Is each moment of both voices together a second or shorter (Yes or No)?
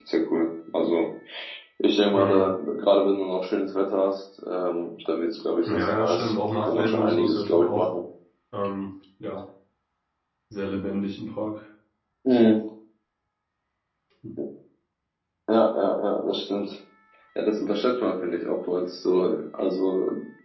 No